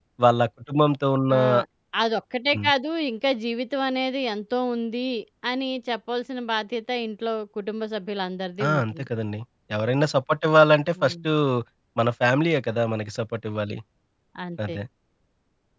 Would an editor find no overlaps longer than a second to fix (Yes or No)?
Yes